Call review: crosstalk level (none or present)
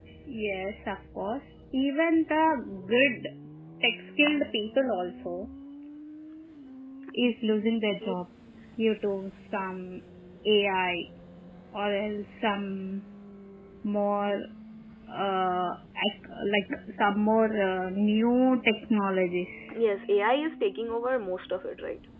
none